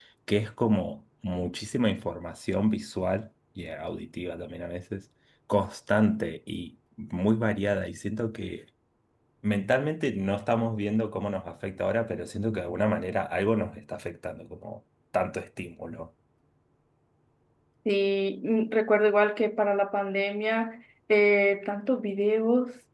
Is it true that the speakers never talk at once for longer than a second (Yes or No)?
Yes